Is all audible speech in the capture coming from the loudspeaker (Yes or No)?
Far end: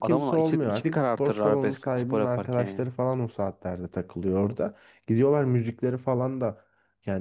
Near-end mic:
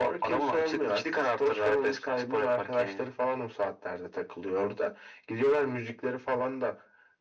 Yes